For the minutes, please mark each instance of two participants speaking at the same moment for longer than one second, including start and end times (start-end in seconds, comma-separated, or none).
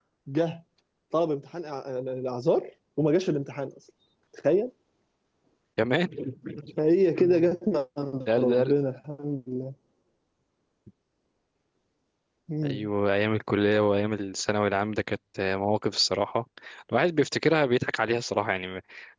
none